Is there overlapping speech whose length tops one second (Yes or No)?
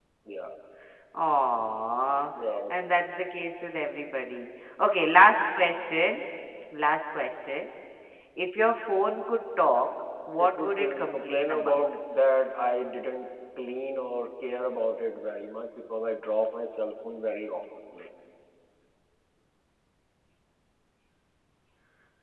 Yes